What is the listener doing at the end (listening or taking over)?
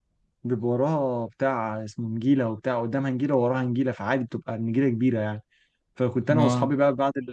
listening